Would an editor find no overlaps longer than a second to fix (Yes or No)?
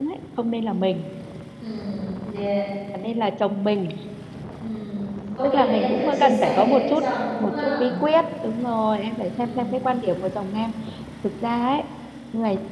No